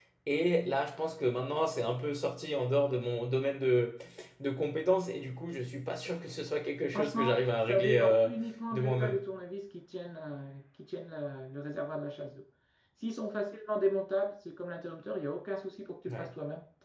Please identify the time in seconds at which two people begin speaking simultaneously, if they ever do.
6.9 s

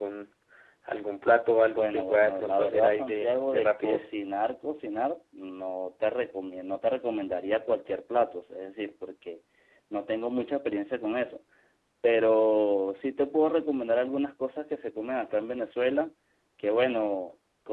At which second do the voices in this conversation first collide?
1.7 s

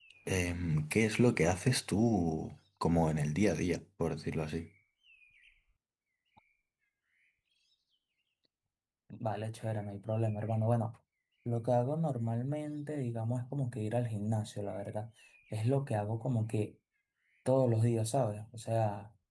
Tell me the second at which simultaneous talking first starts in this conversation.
none

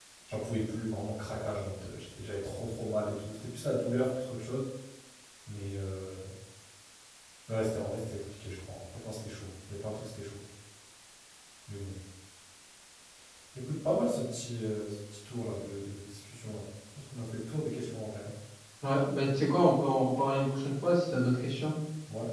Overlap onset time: none

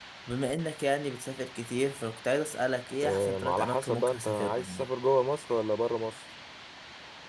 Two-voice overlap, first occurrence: 3.0 s

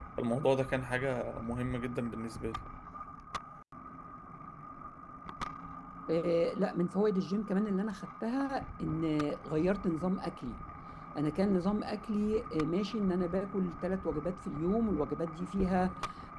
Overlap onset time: none

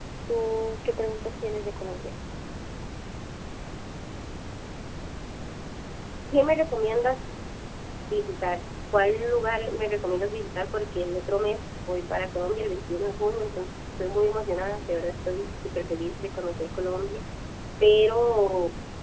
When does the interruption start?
none

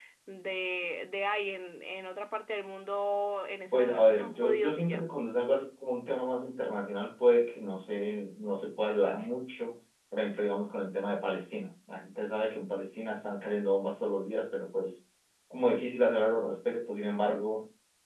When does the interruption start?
3.6 s

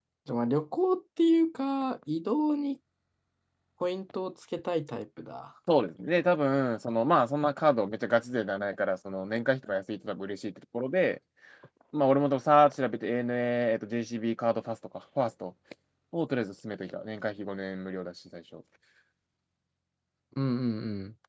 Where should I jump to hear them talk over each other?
none

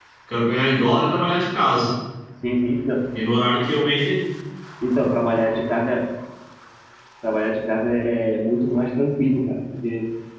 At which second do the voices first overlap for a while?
none

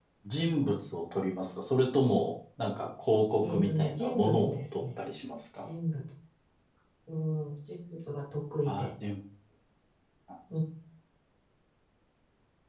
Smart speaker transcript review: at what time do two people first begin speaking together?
3.5 s

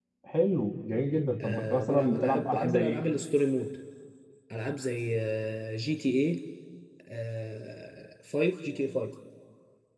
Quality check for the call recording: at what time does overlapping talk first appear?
1.4 s

